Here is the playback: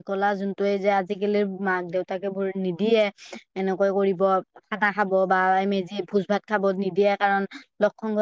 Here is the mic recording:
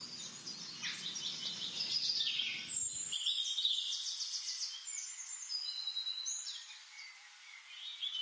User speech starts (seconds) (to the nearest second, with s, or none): none